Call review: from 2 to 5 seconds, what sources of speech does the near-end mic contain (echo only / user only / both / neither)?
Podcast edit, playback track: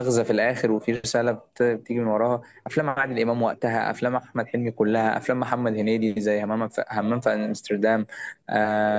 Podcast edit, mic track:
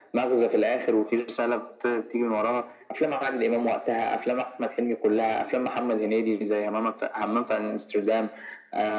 echo only